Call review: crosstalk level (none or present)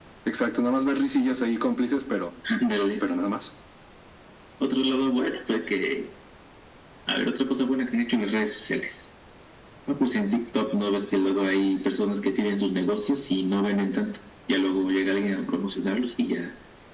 none